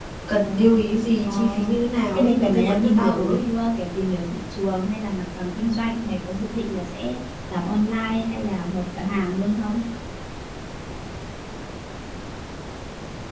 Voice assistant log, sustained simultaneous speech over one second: present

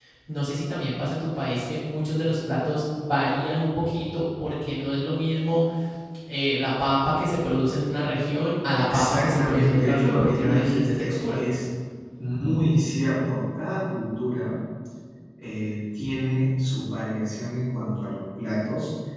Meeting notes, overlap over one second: present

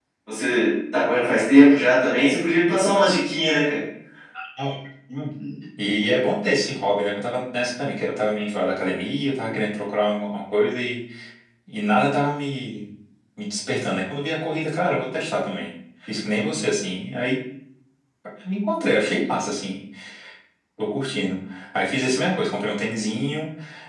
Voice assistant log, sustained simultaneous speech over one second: none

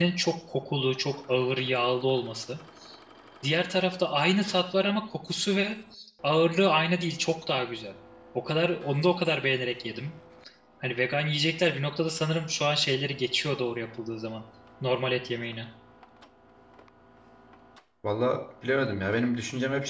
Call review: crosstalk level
none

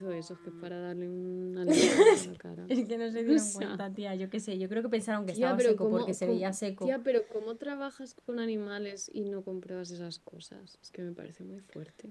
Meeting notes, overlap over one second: present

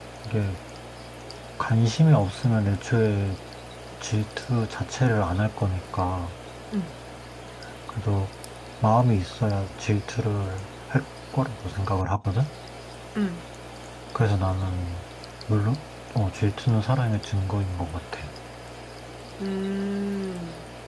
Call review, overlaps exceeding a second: none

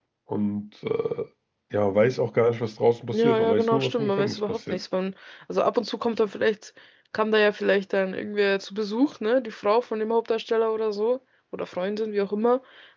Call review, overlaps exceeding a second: present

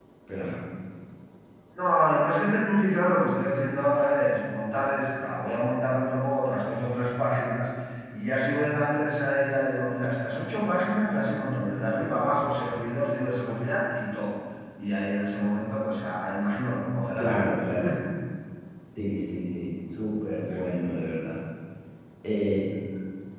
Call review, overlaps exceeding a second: none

